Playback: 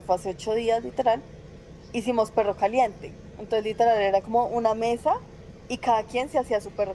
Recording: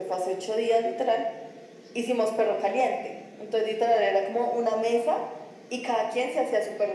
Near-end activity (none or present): none